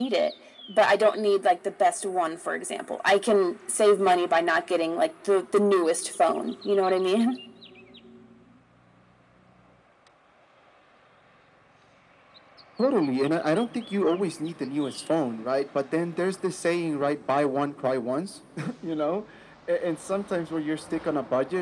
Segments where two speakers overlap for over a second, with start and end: none

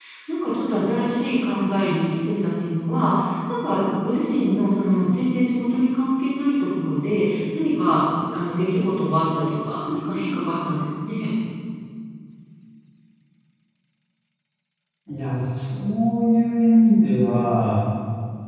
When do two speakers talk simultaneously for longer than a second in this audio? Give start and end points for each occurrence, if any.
none

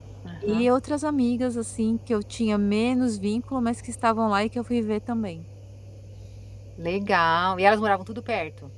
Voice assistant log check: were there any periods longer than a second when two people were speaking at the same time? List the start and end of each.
none

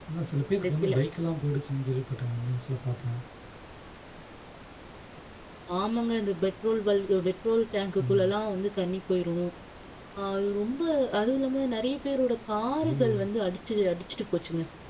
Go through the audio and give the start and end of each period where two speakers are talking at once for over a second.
none

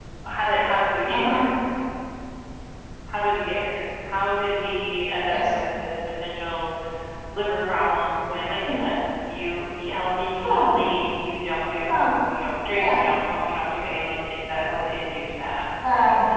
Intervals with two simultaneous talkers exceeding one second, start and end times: none

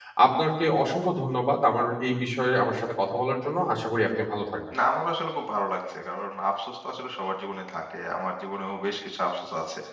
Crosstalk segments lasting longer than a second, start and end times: none

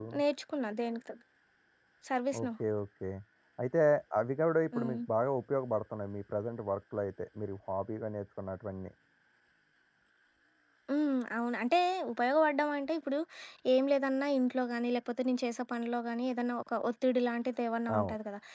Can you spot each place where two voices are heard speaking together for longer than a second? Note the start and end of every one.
none

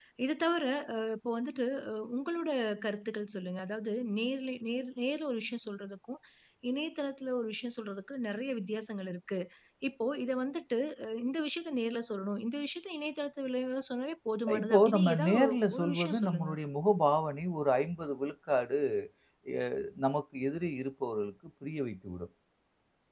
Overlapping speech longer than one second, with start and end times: 14.6-16.5

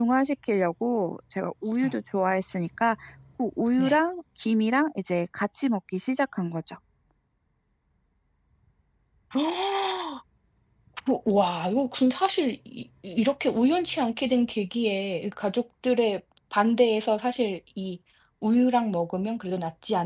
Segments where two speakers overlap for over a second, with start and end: none

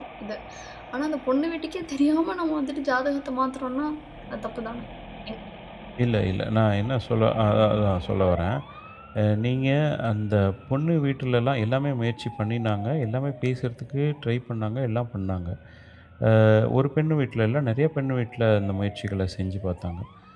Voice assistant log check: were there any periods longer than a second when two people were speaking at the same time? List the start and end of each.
none

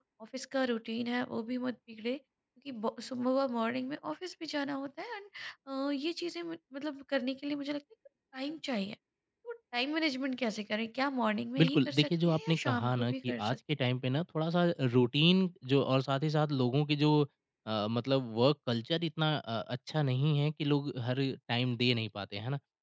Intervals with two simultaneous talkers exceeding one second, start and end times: 11.6-13.6

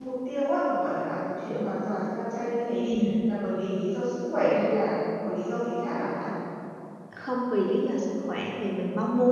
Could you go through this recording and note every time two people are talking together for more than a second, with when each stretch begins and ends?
none

